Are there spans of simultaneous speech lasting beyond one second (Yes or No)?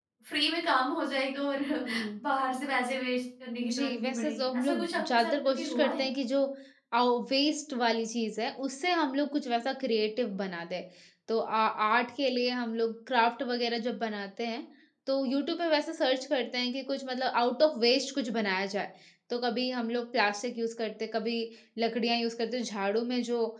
Yes